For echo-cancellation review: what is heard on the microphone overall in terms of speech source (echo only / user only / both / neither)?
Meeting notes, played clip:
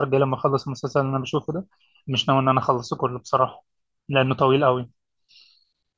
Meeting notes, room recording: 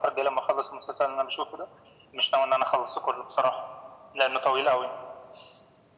echo only